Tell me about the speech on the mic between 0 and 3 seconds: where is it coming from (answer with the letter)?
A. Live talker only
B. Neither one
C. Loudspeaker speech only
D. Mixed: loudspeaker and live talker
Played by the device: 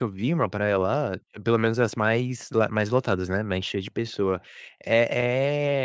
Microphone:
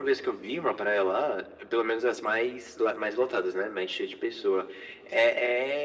C